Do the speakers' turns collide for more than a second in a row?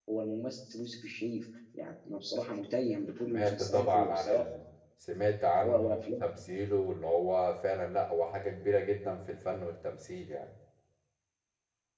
Yes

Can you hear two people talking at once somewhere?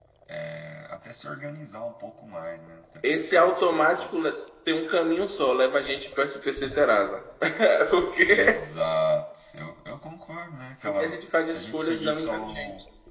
Yes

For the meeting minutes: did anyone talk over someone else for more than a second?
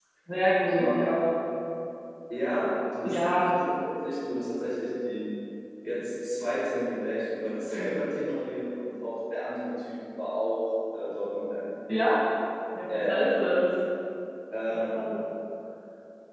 No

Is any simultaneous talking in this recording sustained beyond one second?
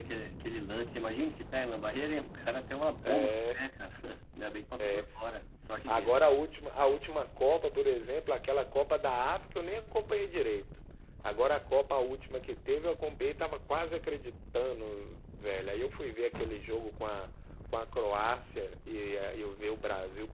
No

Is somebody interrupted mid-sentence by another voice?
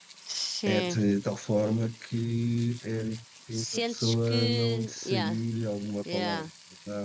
Yes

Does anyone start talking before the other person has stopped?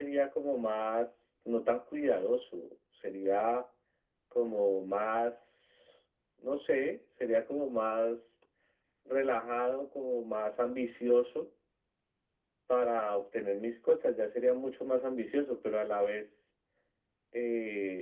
No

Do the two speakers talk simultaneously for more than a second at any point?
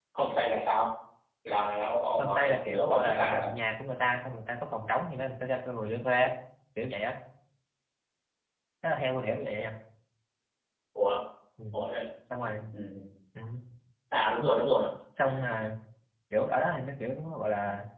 Yes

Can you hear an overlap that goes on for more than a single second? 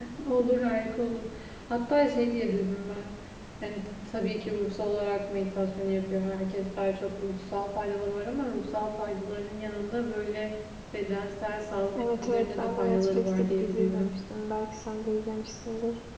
Yes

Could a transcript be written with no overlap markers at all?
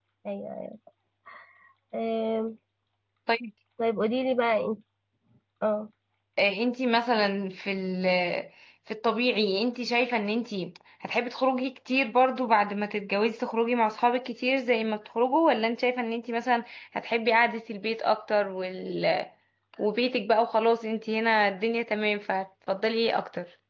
Yes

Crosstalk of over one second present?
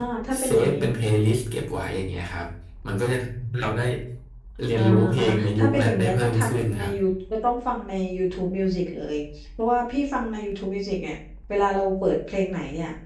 Yes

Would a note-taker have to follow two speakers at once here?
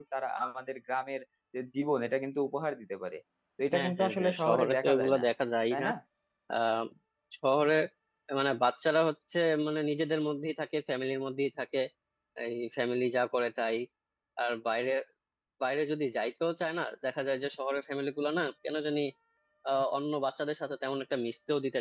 Yes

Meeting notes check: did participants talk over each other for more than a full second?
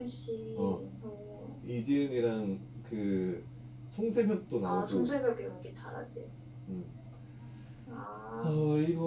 No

